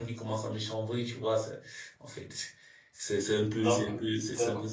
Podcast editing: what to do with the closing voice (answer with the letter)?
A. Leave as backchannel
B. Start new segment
A